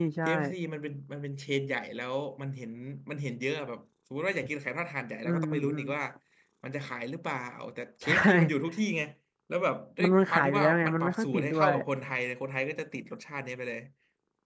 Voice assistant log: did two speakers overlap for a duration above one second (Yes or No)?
Yes